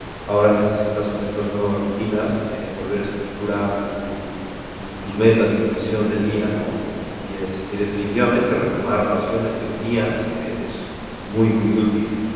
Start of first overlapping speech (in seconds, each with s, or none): none